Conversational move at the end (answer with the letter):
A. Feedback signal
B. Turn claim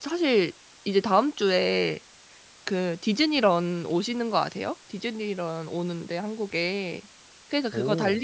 A